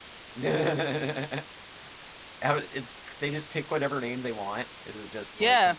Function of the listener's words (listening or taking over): taking over